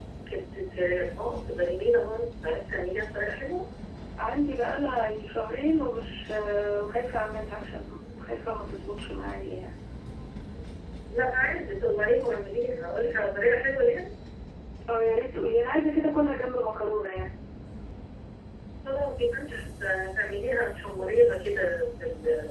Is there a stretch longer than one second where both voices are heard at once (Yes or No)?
No